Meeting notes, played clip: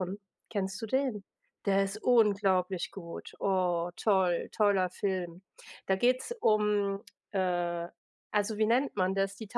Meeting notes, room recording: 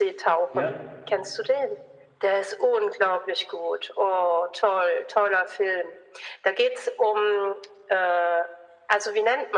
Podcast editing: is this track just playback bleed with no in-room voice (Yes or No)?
No